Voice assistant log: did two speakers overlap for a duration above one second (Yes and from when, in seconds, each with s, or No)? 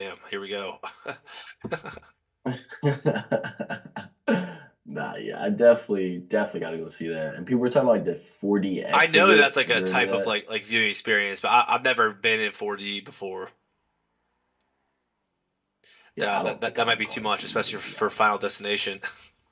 Yes, from 8.9 s